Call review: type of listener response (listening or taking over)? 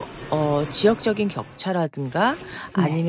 listening